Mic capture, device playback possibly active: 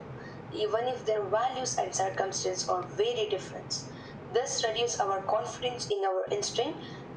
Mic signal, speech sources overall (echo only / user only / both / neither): echo only